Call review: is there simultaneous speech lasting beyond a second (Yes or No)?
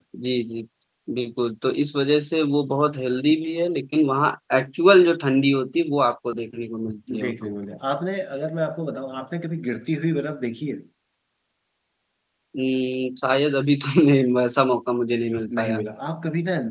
No